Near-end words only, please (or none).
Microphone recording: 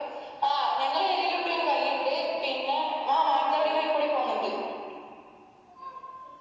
none